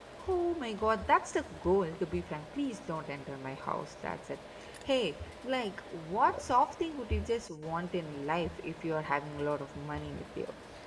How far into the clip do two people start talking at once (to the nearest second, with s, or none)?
none